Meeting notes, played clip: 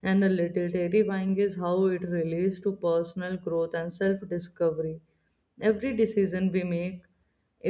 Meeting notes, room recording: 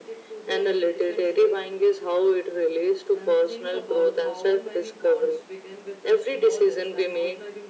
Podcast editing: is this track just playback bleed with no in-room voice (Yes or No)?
No